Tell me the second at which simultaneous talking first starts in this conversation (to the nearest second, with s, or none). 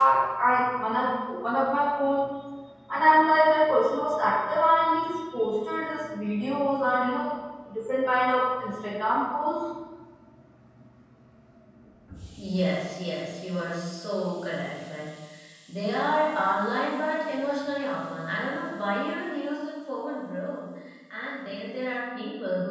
none